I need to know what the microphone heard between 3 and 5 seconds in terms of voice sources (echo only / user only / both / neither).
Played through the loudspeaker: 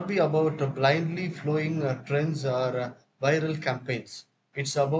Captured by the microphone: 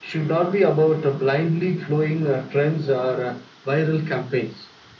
echo only